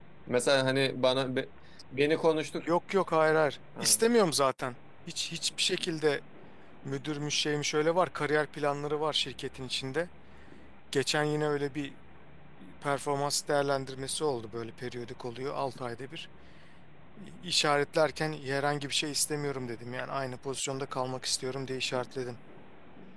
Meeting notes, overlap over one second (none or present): none